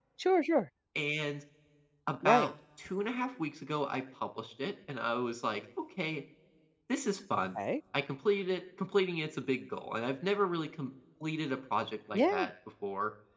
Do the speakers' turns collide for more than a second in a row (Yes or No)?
No